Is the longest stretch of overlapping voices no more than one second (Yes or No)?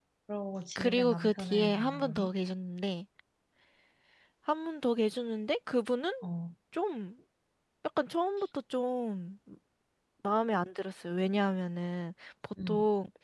No